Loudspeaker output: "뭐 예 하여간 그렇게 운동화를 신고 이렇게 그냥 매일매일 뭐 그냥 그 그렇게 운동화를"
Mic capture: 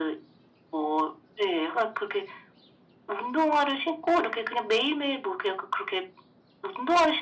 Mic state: echo only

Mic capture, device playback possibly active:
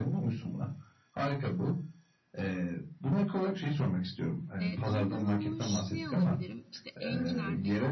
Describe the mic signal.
both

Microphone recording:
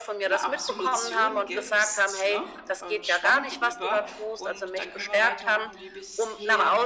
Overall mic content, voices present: both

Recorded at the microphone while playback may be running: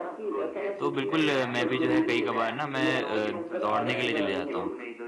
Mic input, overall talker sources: both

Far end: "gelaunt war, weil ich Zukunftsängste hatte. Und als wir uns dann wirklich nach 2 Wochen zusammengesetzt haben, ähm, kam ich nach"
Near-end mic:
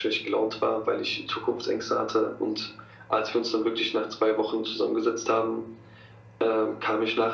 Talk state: echo only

